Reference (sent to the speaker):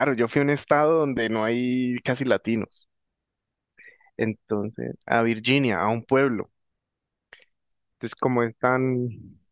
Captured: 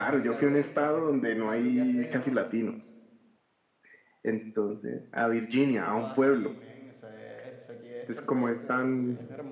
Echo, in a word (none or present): present